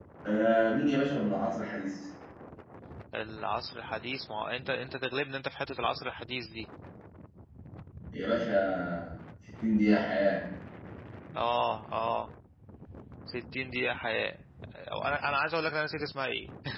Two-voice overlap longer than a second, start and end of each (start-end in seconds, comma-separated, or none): none